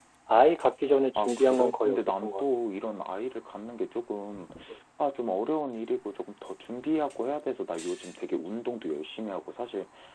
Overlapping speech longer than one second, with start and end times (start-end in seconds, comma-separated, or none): 1.1-2.4